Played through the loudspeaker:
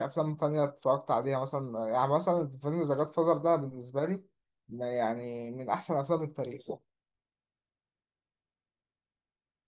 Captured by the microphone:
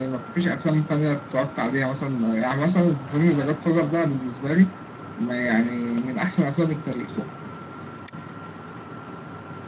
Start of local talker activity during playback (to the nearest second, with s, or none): none